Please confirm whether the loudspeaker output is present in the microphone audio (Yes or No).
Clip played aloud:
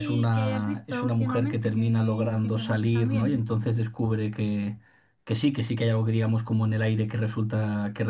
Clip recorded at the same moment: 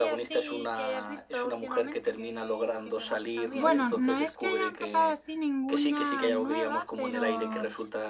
Yes